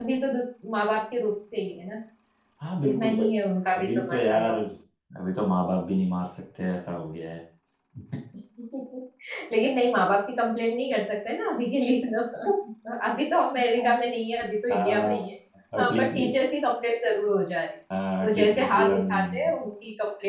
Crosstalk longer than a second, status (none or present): present